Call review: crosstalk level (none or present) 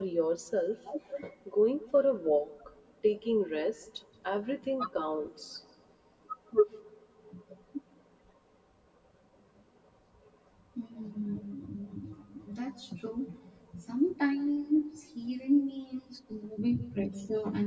none